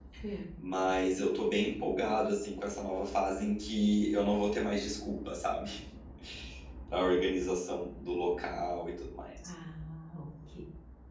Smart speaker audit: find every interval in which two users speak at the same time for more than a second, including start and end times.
none

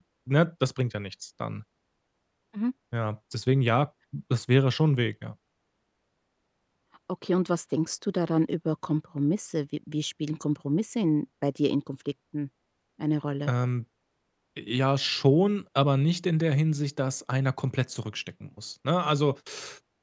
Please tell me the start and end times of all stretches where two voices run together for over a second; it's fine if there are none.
none

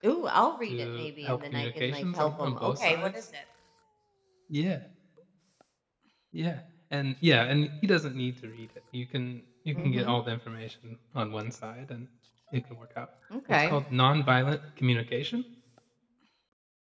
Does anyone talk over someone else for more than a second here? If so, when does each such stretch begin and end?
0.7-3.1

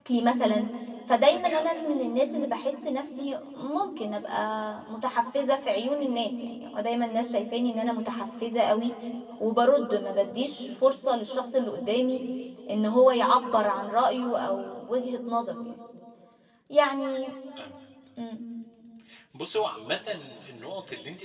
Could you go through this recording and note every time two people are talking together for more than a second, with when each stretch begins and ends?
none

